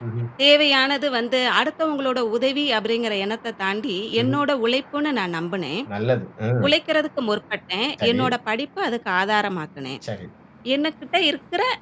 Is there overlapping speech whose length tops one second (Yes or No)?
No